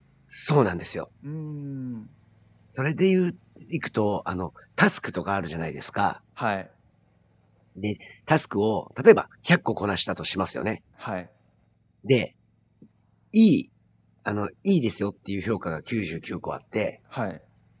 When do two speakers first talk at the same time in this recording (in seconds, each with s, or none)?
none